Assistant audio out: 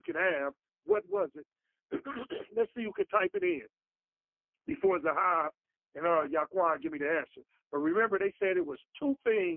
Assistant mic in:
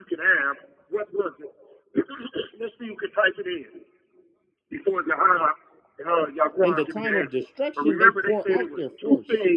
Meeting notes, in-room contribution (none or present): present